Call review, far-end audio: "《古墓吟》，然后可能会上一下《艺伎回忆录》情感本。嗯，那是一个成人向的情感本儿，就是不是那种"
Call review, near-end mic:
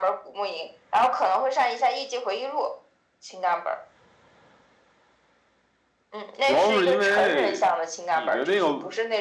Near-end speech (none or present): present